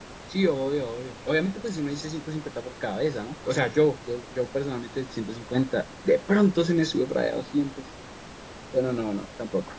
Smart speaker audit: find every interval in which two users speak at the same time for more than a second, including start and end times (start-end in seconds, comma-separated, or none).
none